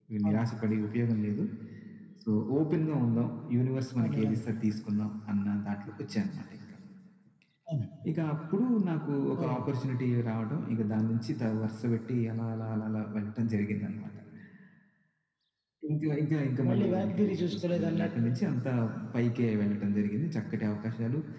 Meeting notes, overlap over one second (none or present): present